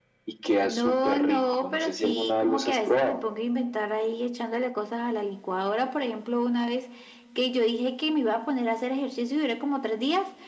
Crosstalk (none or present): present